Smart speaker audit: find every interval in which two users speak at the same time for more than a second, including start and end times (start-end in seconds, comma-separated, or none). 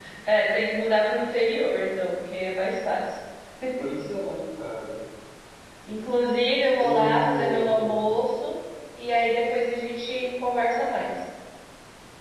6.8-8.0